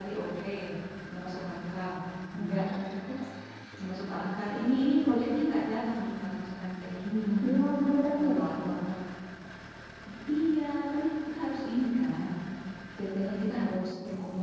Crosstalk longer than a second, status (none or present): none